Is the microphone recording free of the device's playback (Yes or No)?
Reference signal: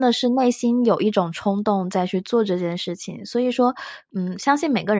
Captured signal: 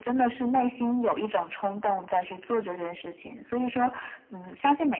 No